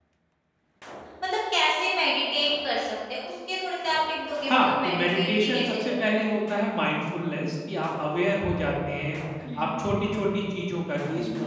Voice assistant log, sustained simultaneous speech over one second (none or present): present